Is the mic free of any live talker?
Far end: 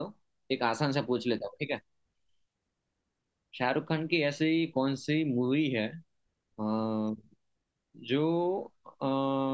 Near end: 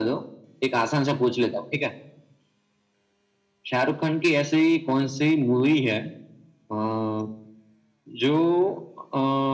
Yes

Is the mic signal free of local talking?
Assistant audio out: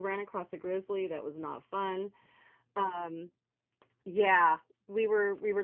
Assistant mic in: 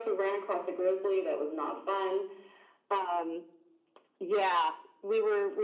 Yes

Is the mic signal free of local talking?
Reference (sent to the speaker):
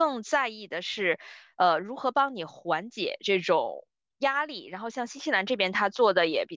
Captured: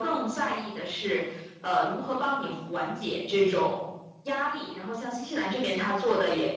Yes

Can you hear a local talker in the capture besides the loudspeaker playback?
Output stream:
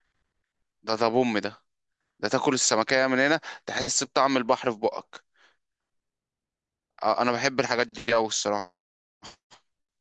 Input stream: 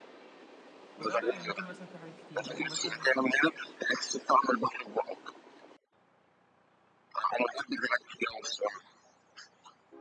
Yes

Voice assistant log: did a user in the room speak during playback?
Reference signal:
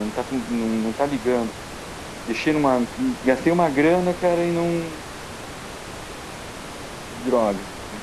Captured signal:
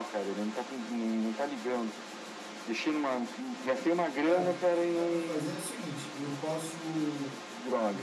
Yes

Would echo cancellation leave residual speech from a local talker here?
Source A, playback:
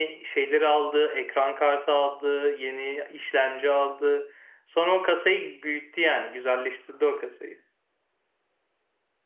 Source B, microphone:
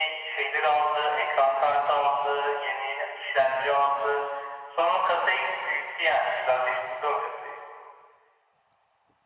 No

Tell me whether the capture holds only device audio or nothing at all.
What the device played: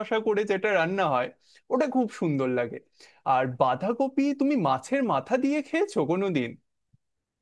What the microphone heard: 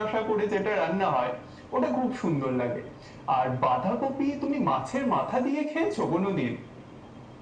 Yes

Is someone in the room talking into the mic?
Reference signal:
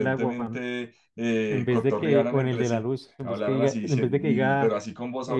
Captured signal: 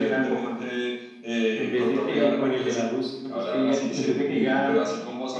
No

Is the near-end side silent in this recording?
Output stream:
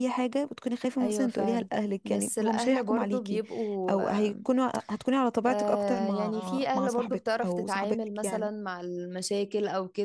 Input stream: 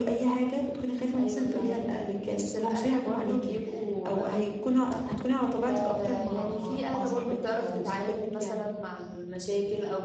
Yes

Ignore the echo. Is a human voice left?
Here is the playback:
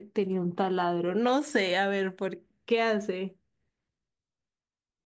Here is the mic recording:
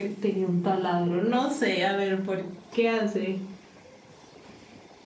No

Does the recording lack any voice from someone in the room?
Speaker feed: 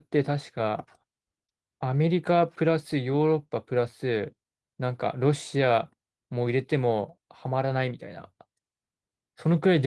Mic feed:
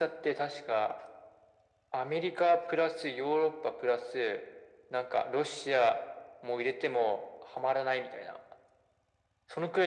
Yes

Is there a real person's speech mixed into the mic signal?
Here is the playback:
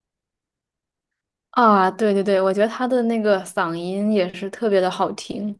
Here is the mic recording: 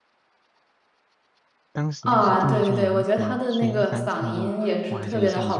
Yes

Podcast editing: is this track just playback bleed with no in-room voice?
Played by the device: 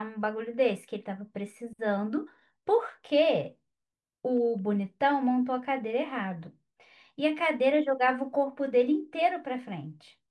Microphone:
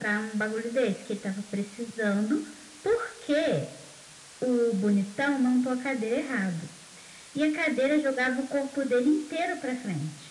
Yes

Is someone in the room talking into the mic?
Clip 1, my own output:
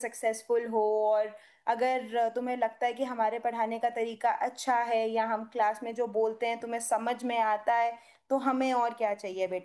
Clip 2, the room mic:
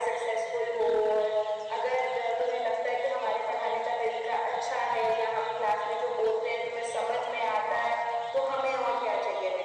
No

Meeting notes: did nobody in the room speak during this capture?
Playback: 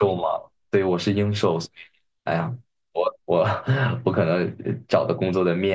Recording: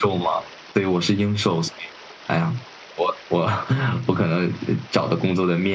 Yes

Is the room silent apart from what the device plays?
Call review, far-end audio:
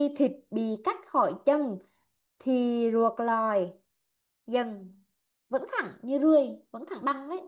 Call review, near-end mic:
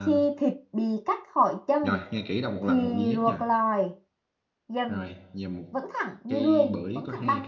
No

